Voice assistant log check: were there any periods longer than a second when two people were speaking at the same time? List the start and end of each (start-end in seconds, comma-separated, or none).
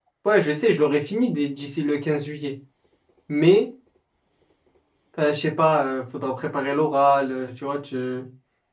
none